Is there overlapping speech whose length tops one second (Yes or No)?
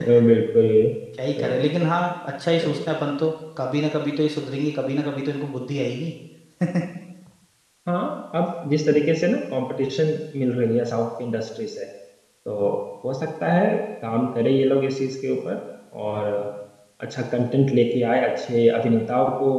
No